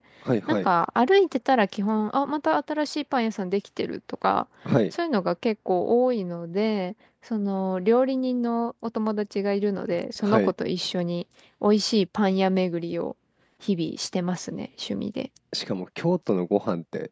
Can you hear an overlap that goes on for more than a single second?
No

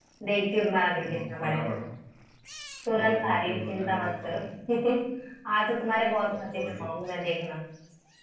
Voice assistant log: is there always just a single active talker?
No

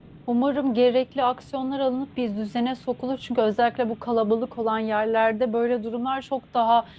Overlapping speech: No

